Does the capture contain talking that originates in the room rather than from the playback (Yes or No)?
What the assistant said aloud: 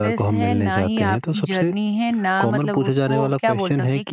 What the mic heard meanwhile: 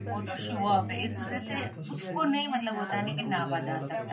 Yes